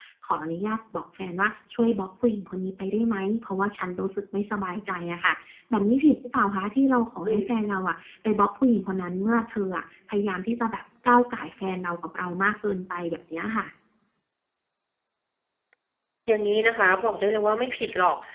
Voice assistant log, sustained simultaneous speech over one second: none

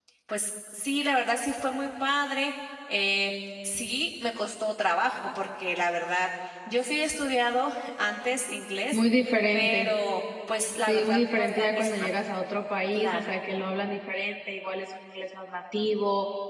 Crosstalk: present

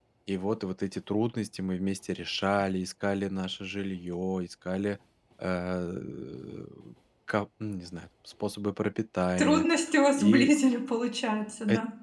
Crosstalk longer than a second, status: none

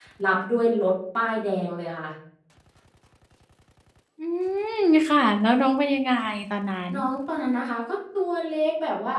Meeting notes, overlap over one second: none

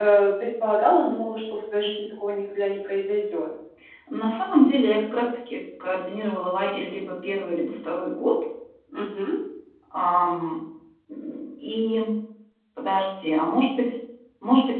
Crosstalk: none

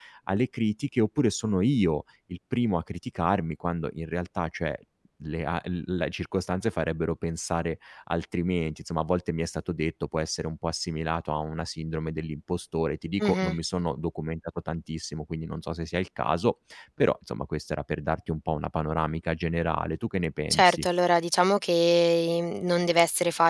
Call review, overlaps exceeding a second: none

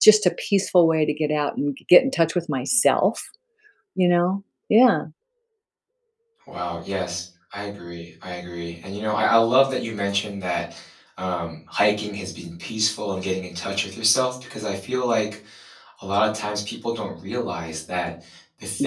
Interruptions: none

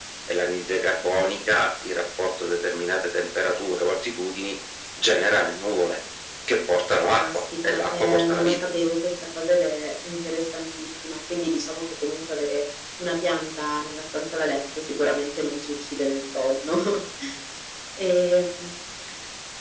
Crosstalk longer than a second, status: present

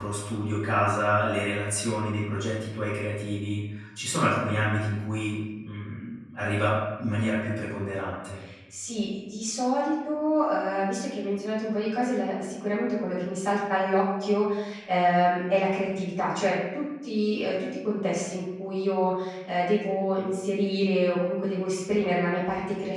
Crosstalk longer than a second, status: none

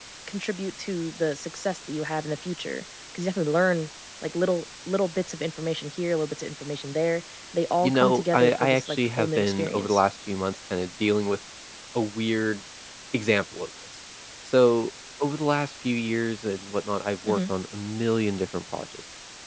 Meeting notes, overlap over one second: present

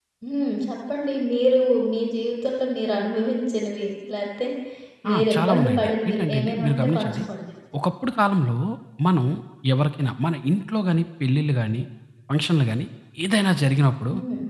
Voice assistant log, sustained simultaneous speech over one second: present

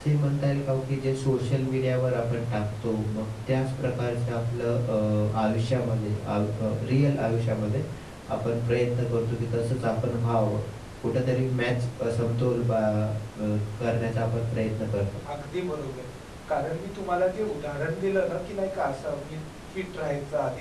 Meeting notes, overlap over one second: none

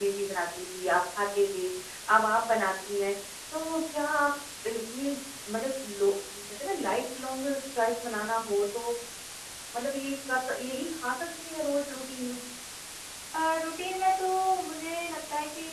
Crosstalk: none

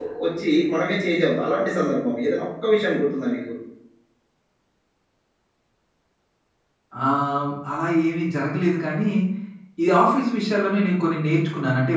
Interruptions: none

